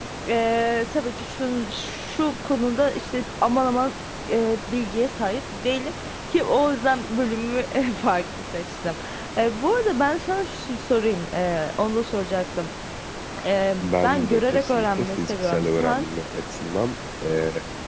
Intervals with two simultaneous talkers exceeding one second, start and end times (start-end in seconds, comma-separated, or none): 13.8-16.1